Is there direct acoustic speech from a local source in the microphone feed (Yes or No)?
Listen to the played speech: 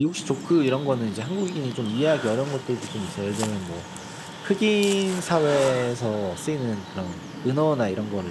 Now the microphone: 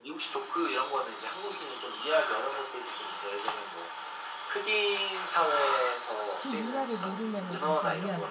Yes